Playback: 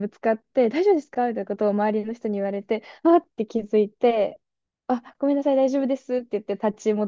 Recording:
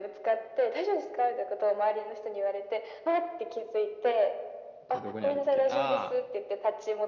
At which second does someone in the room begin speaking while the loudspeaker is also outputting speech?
4.9 s

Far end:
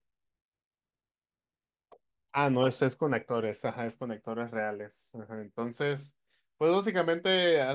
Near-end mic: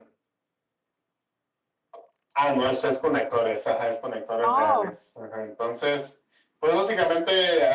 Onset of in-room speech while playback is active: 4.5 s

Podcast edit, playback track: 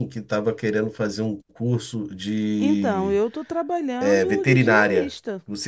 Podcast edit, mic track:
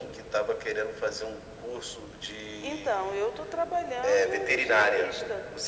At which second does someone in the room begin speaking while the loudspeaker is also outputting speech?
none

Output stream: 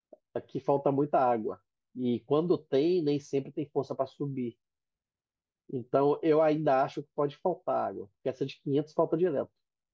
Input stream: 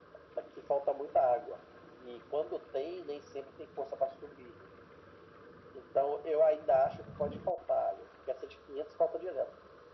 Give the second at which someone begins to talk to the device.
none

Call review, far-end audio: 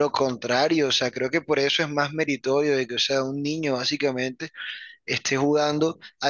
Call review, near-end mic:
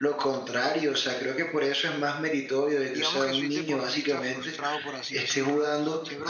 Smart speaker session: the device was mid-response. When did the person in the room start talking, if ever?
2.9 s

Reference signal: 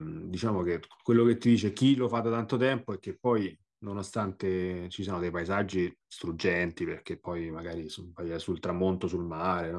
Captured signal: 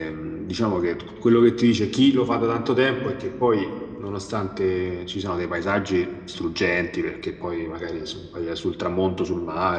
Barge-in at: none

